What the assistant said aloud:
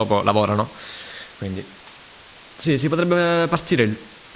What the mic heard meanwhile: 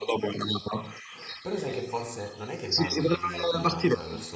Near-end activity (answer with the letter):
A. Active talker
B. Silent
A